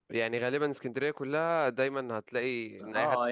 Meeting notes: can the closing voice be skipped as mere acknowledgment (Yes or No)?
No